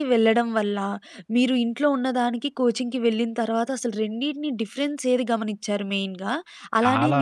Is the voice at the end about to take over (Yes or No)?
No